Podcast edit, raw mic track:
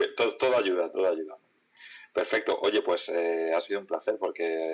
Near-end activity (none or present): none